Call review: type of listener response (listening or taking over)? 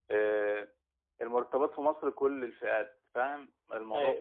taking over